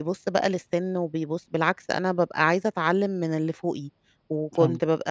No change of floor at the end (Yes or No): Yes